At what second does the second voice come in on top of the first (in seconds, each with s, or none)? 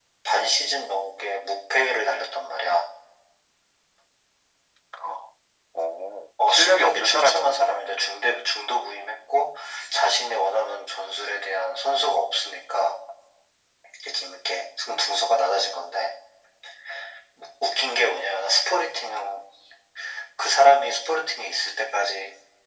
6.5 s